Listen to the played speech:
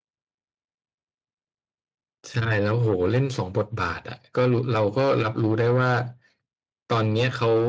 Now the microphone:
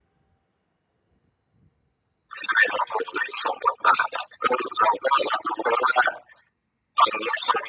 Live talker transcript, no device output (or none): none